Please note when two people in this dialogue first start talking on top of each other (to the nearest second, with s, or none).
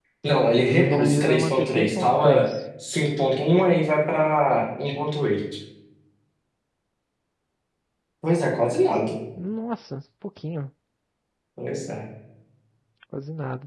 1 s